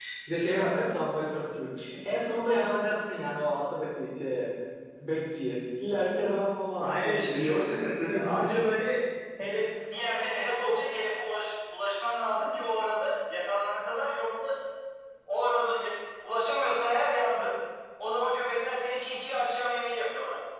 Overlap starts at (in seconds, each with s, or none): 6.8 s